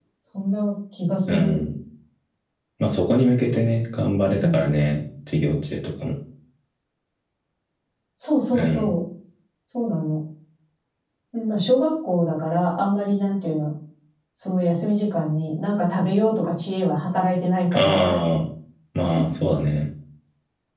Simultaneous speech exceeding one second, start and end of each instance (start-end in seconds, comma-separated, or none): none